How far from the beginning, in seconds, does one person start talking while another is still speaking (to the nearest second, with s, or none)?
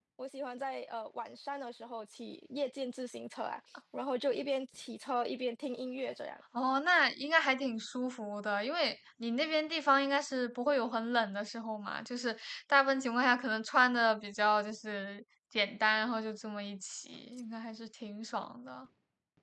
none